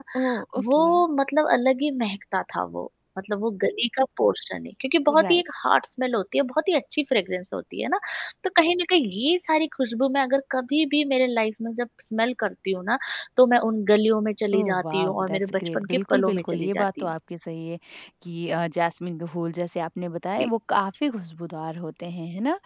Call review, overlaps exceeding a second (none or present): present